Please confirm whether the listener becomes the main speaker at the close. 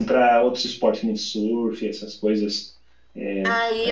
Yes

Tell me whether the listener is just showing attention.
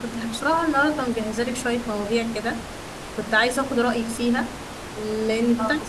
Yes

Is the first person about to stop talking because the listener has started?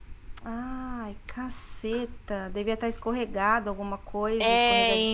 Yes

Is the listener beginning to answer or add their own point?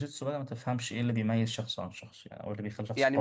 Yes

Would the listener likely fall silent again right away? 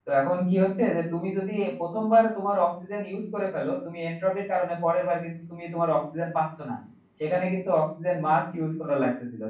Yes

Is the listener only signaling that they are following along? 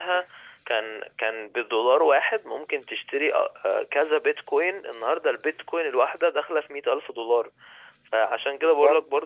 Yes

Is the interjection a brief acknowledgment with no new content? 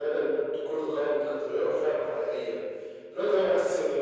Yes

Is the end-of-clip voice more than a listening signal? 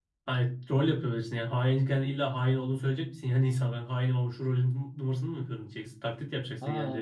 Yes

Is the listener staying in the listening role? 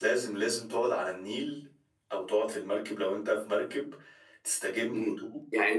No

